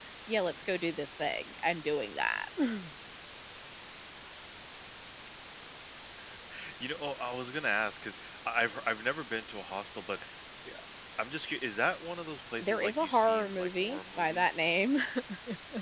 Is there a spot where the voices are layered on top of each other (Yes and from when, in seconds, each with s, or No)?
Yes, from 12.6 s